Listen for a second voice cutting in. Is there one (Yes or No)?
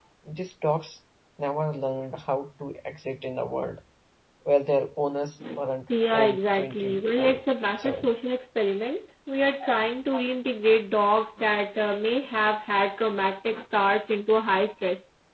Yes